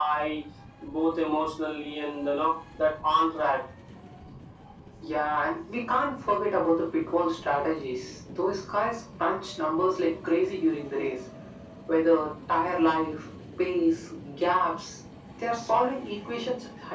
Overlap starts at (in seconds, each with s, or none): none